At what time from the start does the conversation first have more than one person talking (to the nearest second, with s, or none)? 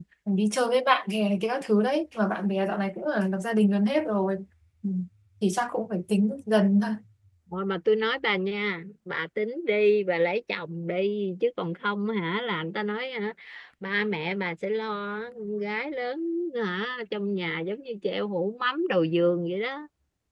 none